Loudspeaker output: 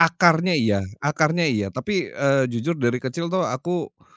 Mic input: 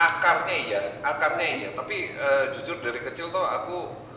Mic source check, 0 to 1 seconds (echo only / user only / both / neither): echo only